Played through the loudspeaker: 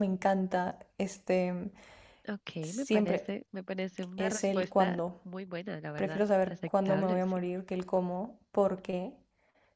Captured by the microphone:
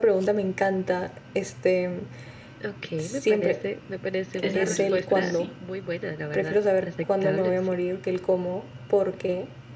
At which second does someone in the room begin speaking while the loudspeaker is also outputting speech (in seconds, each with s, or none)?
4.3 s